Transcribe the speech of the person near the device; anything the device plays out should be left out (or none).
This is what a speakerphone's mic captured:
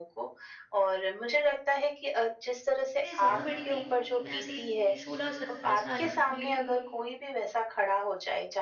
मैं ज़्यादा बड़ी नहीं थी, मैं ऐसे ही थी 16-17 साल की।